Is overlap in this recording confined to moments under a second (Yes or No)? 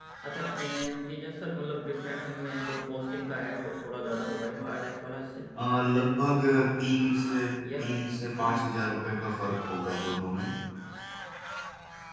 Yes